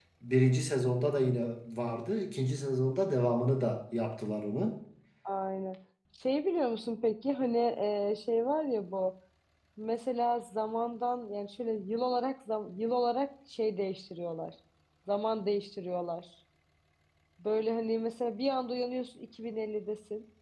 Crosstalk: none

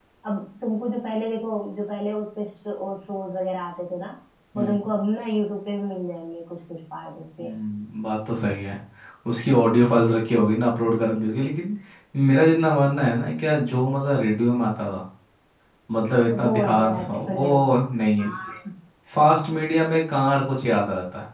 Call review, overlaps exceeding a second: present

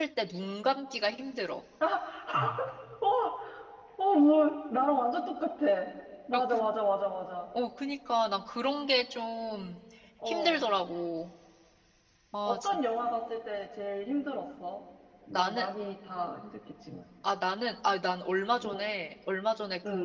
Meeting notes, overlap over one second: none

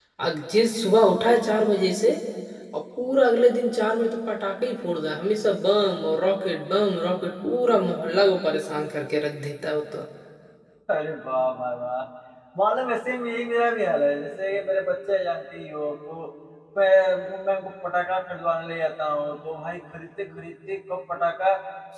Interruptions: none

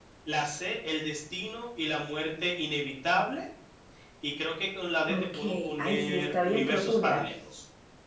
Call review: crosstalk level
present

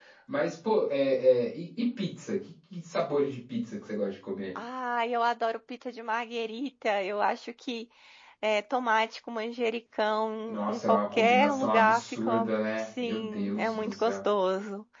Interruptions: present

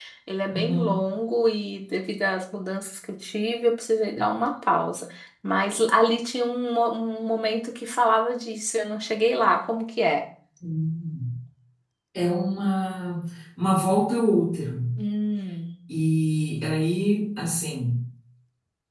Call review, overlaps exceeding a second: none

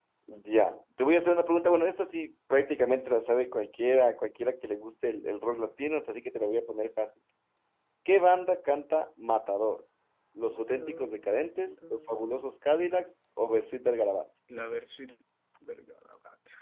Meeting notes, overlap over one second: present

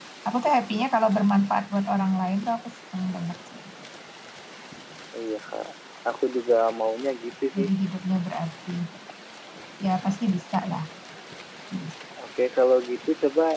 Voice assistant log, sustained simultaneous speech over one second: none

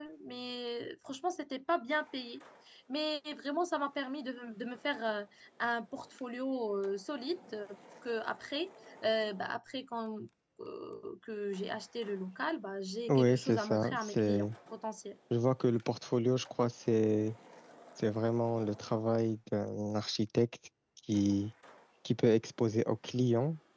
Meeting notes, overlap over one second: present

